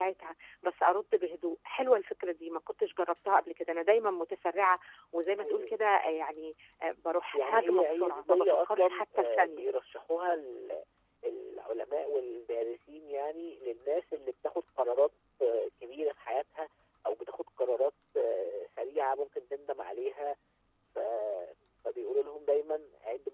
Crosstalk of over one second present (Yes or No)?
Yes